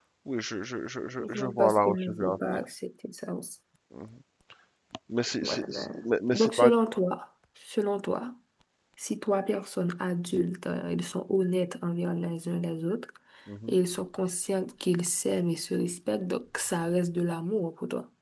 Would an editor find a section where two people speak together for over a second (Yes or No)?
Yes